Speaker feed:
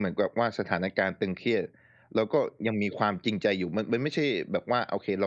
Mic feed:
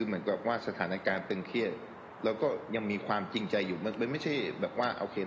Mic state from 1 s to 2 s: echo only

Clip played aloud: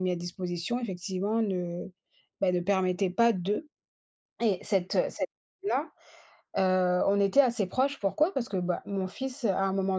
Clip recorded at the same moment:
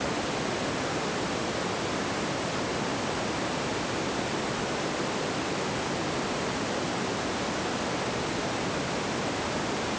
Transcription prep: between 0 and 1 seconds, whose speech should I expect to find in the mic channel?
neither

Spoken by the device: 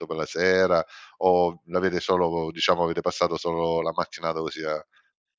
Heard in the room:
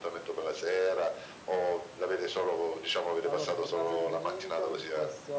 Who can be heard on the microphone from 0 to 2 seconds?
echo only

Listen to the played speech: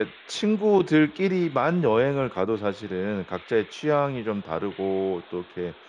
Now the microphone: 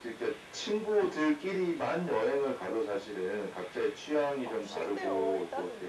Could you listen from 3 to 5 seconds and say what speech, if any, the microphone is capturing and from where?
both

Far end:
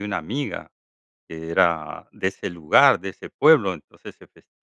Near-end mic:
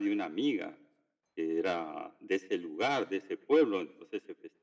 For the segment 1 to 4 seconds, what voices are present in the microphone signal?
echo only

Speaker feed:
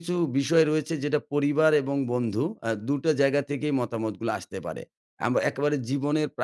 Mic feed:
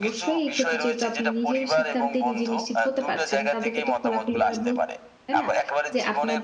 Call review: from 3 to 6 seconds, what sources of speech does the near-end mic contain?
both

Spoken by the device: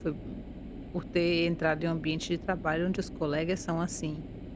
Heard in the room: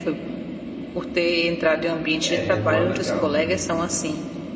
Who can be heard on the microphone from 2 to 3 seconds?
both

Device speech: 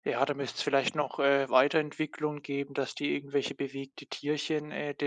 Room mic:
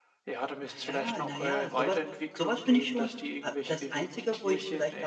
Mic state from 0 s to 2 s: both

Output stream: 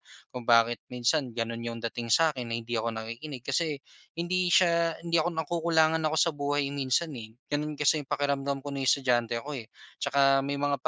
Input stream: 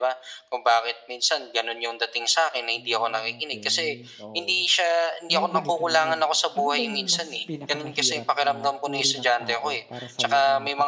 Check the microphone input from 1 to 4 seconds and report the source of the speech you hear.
both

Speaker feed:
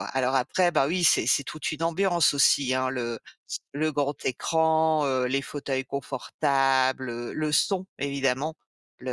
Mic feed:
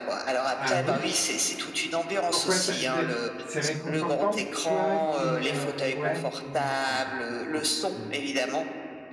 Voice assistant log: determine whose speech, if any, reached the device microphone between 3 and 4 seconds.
both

